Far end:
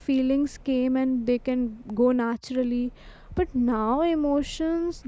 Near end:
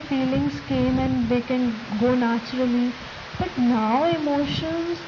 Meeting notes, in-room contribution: none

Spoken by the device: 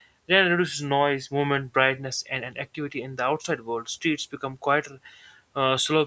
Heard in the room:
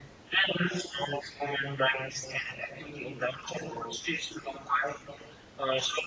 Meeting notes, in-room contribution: none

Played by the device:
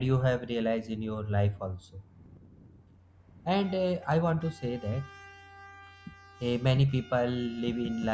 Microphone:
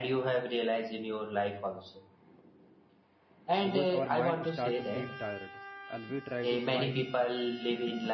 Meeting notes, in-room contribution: present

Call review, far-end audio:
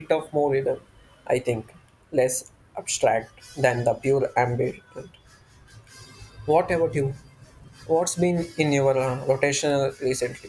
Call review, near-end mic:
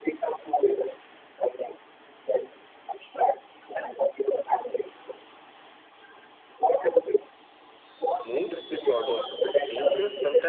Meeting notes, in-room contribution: present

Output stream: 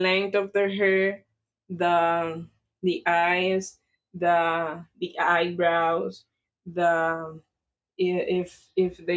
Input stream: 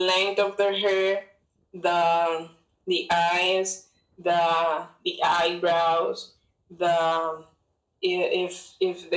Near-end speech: none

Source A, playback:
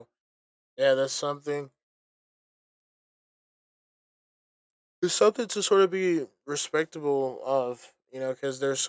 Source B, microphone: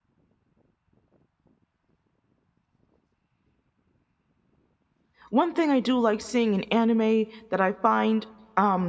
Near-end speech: present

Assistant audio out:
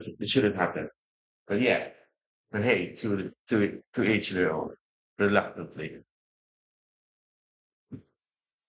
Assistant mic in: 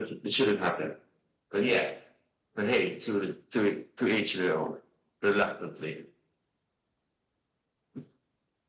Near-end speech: none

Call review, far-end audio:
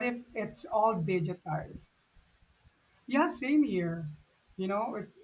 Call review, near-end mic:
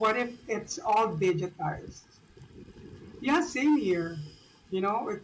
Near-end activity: none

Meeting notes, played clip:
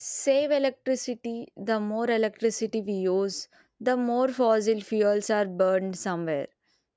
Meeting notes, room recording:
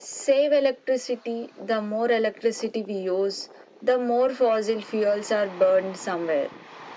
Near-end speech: none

